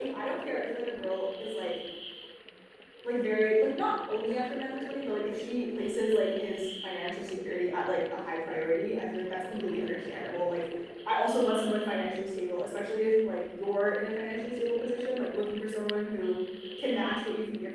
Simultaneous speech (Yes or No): No